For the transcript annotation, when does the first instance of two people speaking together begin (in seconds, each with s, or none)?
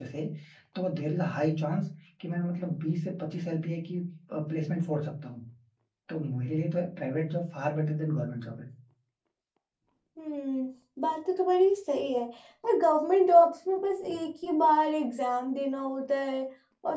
none